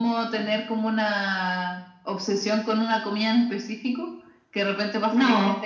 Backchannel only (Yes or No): Yes